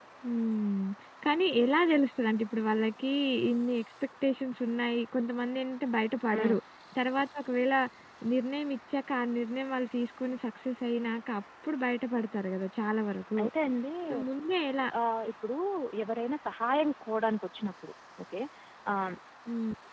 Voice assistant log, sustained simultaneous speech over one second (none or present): none